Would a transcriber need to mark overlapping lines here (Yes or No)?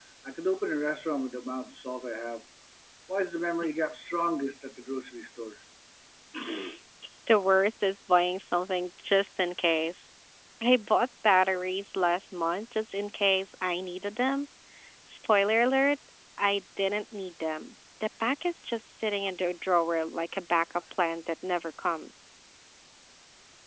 No